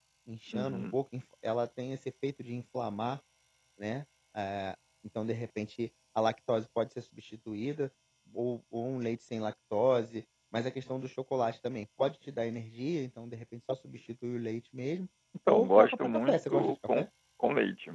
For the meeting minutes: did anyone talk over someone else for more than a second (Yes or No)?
Yes